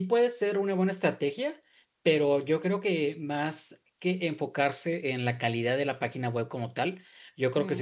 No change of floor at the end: Yes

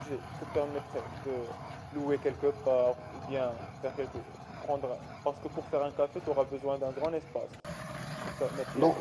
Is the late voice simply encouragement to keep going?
No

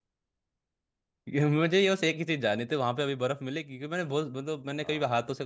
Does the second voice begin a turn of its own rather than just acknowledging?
No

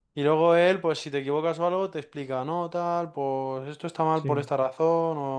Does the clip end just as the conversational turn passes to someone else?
No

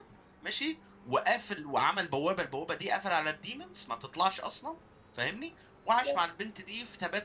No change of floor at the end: Yes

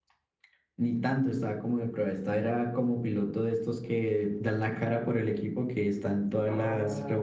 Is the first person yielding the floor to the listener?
Yes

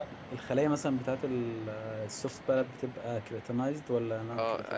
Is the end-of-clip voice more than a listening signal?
Yes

